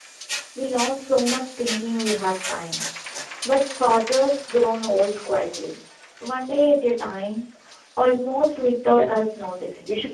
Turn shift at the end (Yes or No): Yes